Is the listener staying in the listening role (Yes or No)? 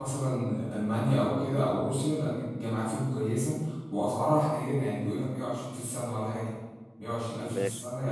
Yes